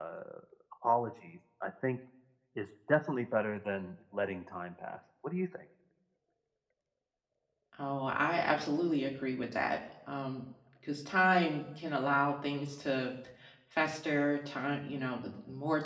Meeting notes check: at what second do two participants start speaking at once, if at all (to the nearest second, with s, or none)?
none